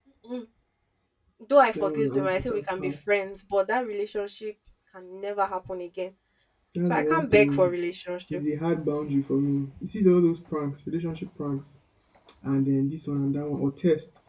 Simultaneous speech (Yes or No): Yes